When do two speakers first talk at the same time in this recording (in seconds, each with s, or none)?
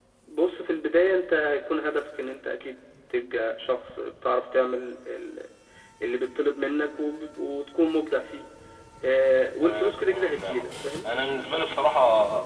9.6 s